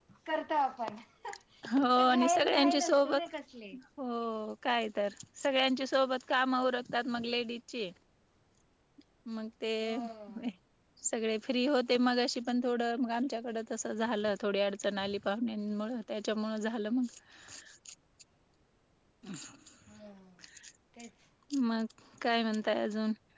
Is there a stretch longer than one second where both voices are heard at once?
Yes, from 1.8 s

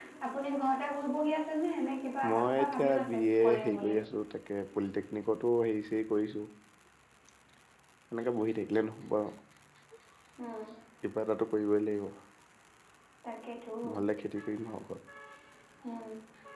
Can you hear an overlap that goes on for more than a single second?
Yes, from 2.2 s

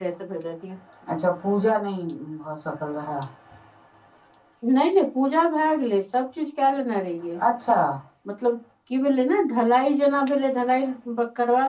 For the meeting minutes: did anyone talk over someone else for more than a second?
No

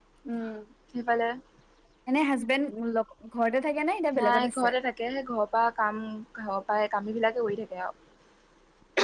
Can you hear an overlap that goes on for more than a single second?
No

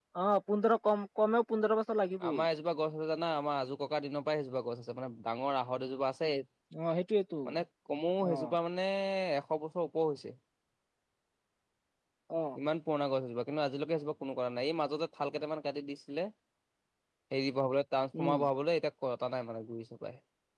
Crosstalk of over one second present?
No

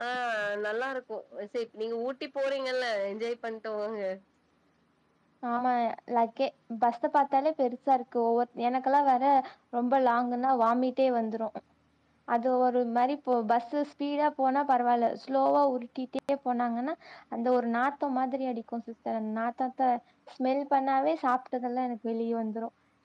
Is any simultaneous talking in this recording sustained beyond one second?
No

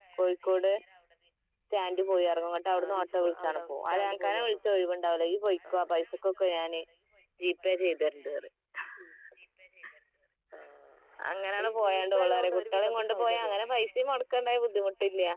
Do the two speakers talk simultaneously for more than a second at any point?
Yes, from 2.8 s

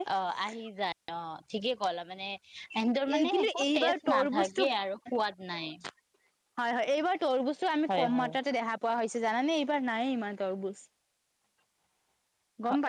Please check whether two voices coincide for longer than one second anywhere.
Yes, from 3.2 s

